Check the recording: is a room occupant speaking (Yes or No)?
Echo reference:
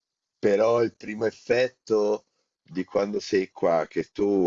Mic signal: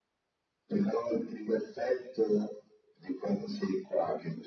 No